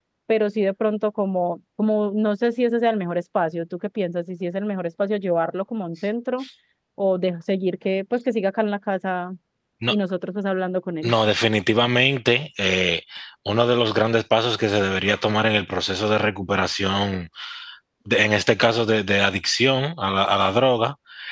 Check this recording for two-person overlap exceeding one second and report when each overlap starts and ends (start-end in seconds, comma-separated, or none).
none